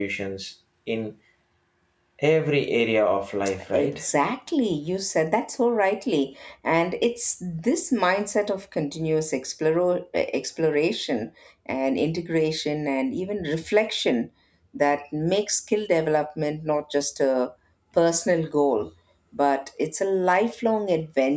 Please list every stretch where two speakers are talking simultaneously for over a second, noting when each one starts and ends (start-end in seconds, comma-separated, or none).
none